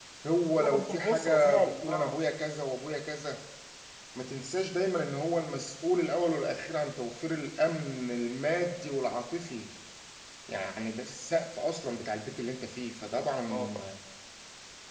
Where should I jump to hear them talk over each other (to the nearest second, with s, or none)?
1 s